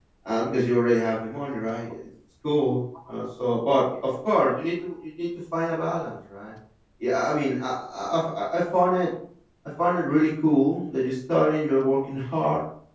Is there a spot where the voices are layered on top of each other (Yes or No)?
No